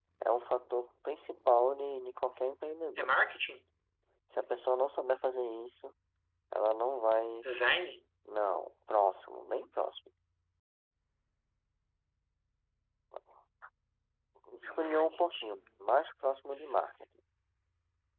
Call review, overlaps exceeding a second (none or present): present